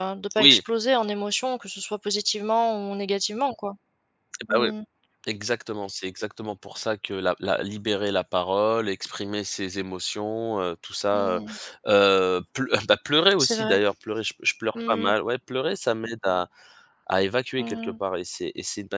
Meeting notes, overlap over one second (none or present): none